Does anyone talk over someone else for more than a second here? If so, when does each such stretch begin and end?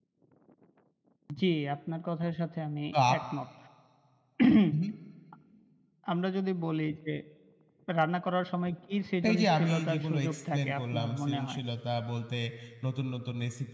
9.3-11.6

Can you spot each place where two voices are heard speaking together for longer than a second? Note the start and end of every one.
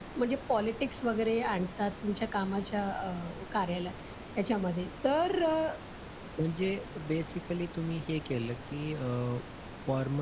none

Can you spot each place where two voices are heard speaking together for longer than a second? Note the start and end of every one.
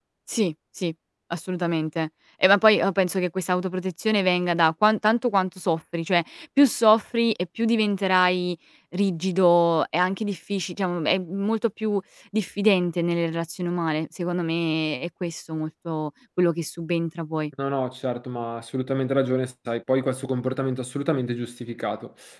none

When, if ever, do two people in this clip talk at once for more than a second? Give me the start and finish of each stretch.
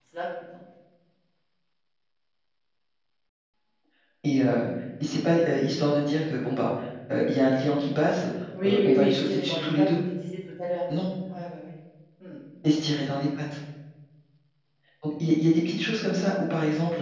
8.6-9.8

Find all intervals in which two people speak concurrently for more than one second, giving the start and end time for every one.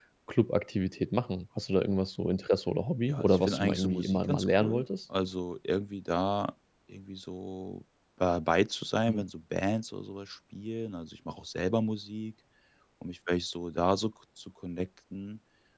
3.1-4.8

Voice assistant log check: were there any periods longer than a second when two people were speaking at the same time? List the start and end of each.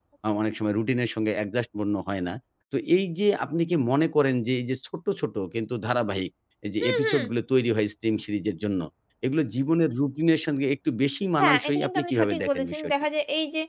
11.4-12.9

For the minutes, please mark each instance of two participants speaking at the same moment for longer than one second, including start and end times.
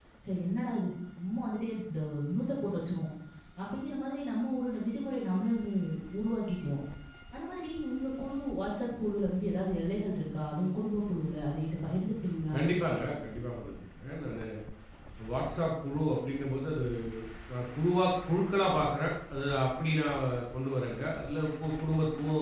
none

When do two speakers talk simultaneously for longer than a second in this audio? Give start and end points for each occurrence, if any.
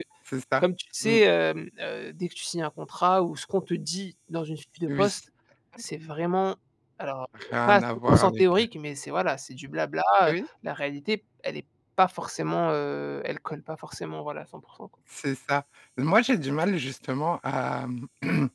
7.4-8.6

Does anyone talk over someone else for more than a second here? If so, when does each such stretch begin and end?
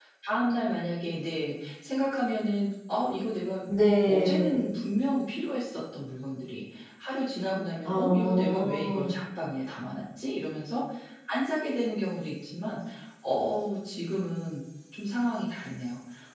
7.8-9.1

